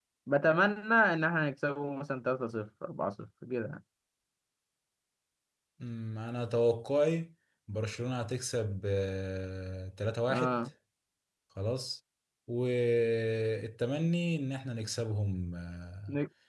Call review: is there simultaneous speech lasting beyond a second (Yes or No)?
No